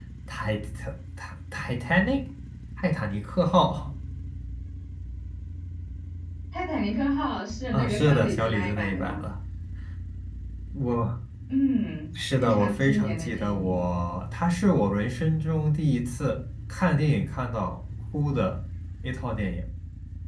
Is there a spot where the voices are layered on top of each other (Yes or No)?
Yes